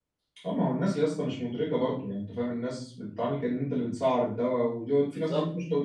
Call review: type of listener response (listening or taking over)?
listening